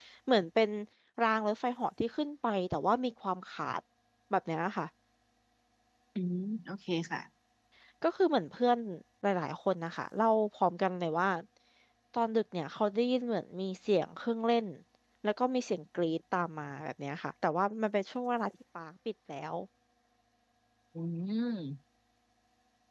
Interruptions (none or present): none